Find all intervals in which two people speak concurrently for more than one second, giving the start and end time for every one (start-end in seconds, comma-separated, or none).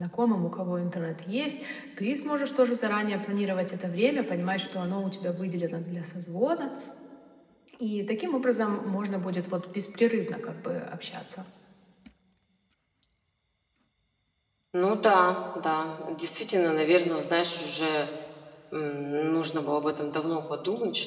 none